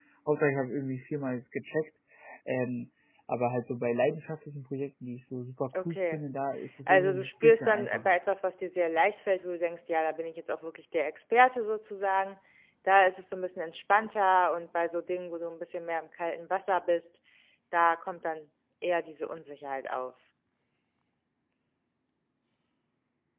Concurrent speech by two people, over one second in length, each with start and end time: 6.9-8.1

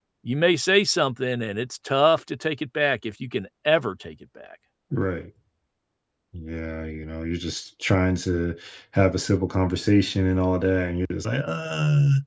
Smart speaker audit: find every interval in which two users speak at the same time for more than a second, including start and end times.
none

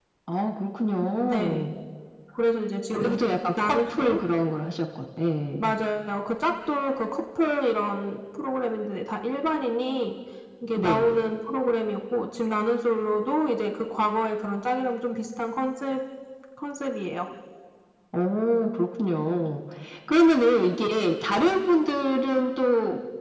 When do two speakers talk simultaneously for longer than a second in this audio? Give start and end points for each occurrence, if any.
2.9-4.2

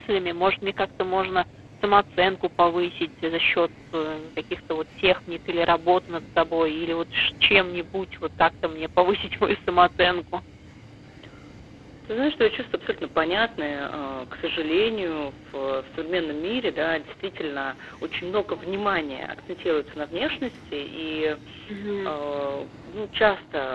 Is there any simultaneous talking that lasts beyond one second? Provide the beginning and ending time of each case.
none

